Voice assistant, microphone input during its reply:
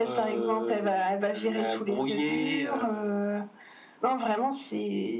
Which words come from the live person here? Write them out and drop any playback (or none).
none